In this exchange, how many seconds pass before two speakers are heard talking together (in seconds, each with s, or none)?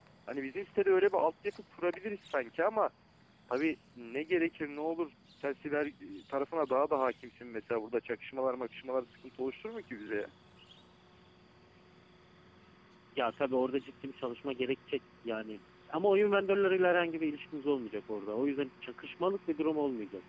none